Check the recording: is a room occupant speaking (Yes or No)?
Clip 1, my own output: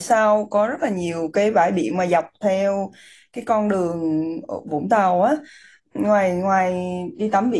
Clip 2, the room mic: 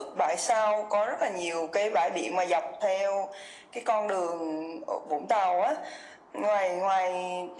No